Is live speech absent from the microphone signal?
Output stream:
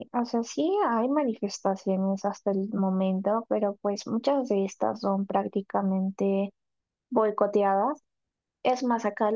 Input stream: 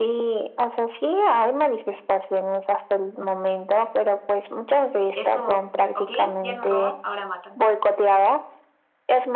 No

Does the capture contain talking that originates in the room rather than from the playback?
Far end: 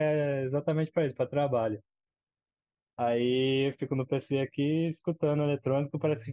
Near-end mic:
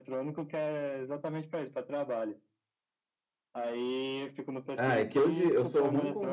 Yes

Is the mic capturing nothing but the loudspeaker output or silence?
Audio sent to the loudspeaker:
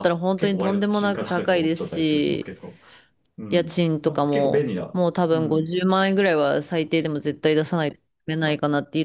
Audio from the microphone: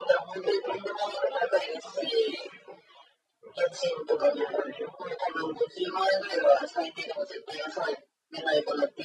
Yes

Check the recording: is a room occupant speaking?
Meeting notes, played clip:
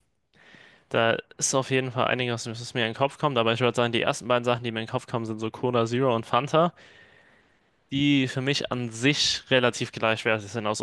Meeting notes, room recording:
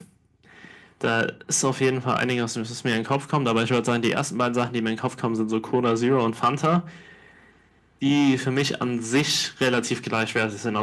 No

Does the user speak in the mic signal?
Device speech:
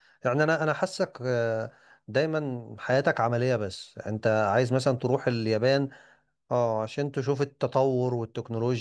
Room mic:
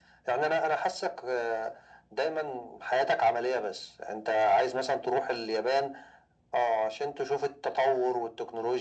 No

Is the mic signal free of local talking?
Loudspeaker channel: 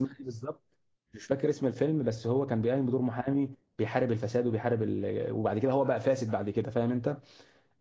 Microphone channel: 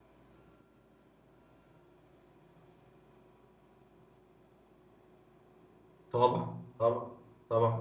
No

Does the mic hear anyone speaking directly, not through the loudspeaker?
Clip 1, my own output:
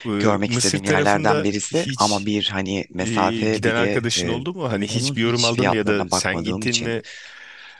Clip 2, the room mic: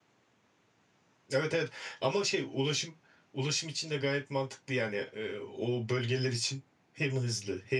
Yes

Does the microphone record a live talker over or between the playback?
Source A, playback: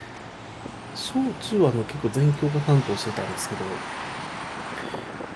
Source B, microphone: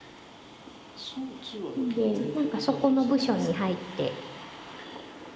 Yes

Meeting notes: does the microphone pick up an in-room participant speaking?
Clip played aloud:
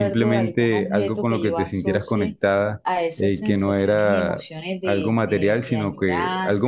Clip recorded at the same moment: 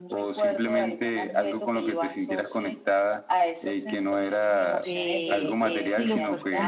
Yes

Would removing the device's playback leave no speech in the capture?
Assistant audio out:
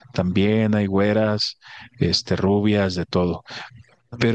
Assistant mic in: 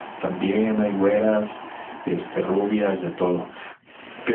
Yes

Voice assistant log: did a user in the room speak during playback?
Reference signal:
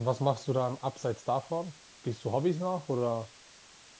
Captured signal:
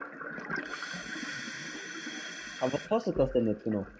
Yes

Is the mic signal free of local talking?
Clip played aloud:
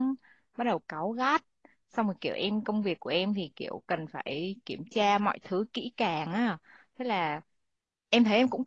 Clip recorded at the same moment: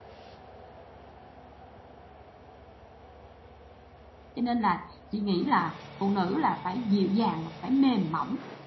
No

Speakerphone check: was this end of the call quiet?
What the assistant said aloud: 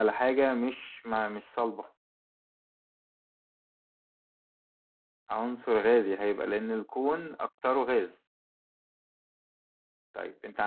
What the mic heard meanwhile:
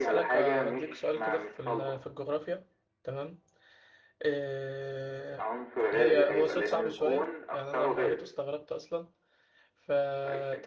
No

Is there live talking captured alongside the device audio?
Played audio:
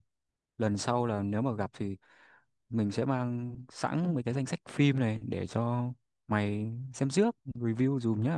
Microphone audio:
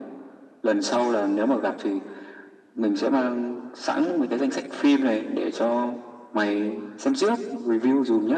No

